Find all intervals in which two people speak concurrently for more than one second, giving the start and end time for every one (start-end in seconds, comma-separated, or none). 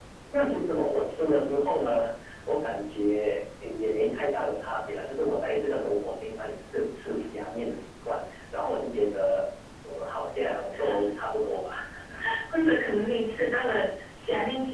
none